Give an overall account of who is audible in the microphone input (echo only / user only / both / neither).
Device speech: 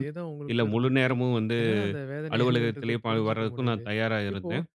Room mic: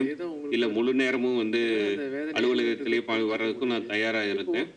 echo only